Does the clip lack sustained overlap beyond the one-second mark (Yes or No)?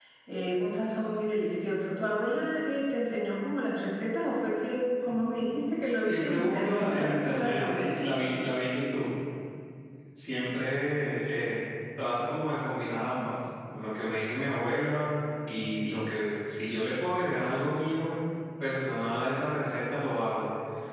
No